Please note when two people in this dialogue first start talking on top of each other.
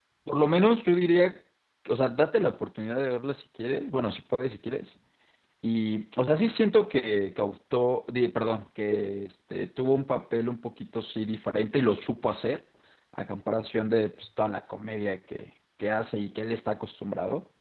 none

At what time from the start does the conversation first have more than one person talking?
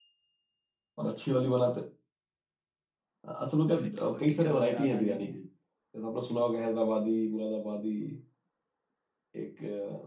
3.8 s

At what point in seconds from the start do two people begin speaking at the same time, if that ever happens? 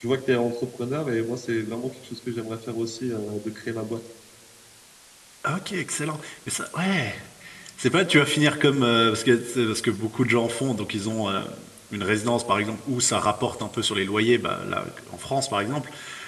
none

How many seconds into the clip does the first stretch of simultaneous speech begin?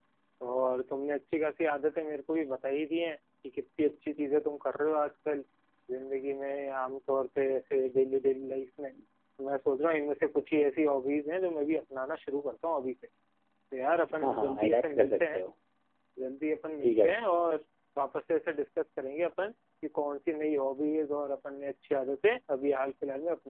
14.2 s

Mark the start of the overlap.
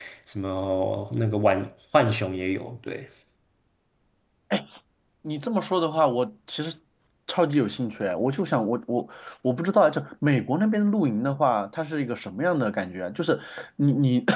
none

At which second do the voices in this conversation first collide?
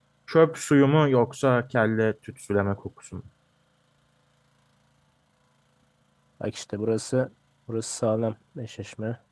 none

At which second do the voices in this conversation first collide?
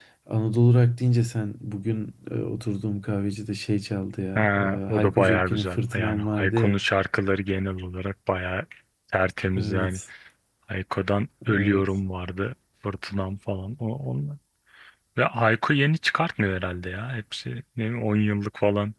4.4 s

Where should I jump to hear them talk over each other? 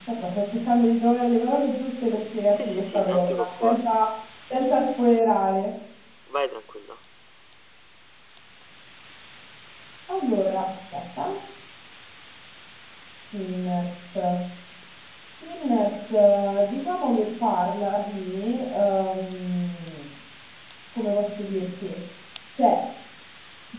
2.5 s

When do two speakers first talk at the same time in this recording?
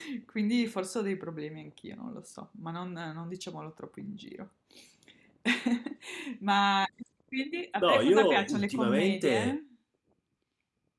7.8 s

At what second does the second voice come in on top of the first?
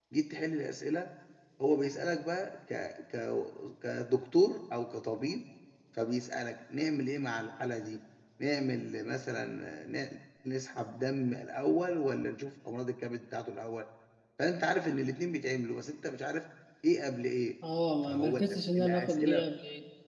18.1 s

